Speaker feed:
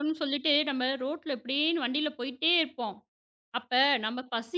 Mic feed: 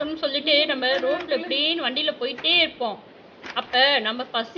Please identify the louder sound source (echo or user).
echo